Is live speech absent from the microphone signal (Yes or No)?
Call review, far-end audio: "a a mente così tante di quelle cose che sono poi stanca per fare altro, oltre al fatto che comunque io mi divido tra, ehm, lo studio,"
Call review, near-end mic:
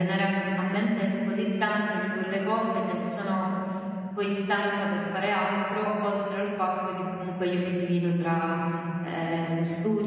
Yes